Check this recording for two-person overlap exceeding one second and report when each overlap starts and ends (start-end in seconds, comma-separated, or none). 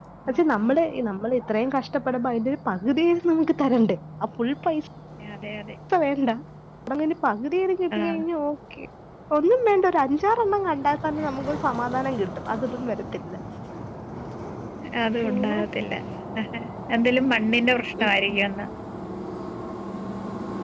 none